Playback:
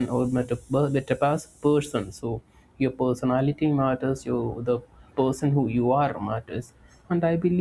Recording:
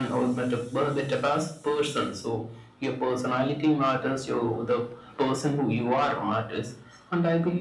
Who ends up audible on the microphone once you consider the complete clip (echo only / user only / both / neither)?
echo only